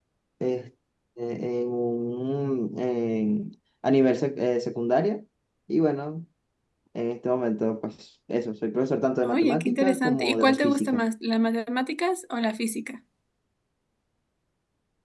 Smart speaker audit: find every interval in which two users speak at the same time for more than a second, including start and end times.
9.2-11.0

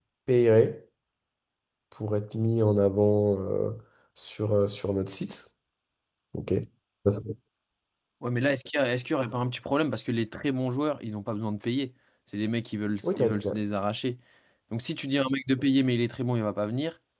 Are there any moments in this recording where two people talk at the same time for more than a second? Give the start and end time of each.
none

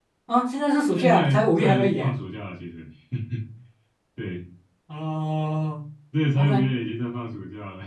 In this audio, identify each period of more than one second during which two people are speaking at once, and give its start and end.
0.9-2.1

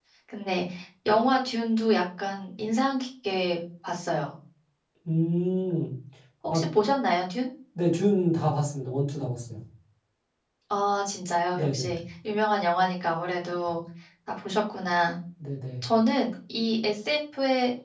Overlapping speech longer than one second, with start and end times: none

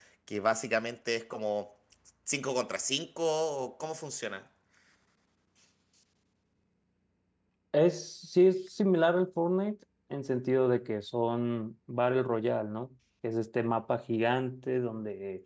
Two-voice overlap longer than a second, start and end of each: none

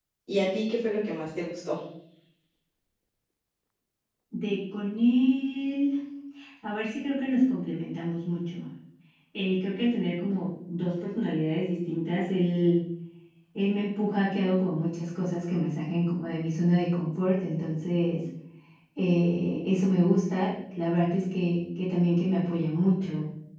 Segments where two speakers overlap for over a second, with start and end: none

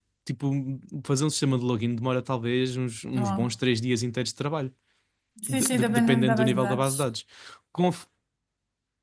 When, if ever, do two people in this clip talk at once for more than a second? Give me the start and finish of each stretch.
5.5-6.9

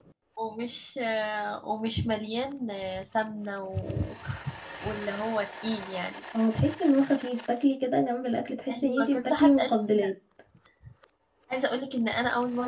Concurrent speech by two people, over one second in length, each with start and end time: 8.7-10.1

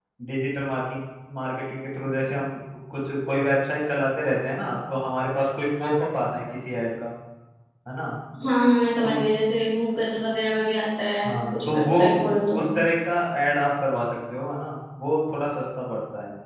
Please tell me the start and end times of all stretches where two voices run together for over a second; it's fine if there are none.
11.3-12.6

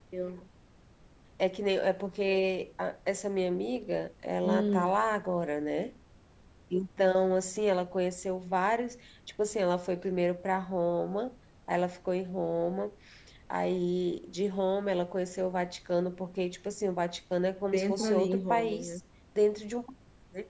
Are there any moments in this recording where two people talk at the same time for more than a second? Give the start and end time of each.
17.7-19.0

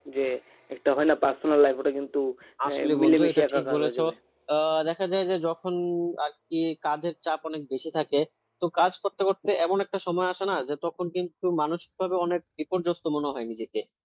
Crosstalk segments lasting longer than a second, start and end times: 2.7-4.0

